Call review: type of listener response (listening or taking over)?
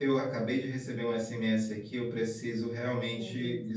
listening